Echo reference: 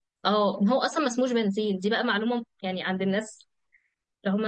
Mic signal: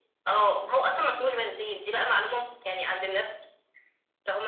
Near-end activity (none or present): none